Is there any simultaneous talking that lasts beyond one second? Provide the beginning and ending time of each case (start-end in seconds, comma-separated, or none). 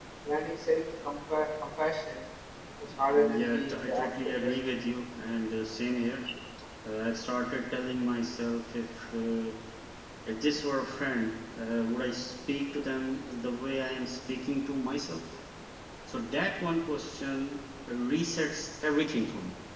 3.1-4.5